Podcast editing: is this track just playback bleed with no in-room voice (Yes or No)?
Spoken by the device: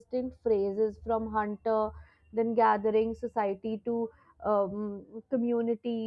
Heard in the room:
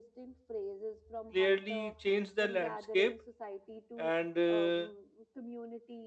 No